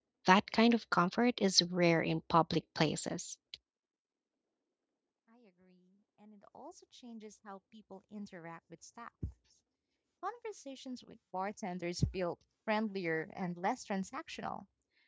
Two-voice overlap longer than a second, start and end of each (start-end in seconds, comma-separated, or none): none